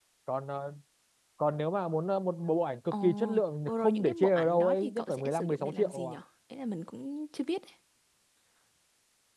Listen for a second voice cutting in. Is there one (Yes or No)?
Yes